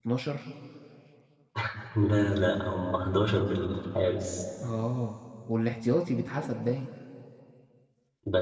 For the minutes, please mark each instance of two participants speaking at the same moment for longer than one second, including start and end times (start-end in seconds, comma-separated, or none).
none